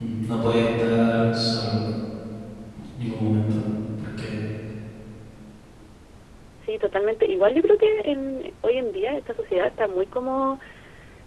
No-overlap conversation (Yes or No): Yes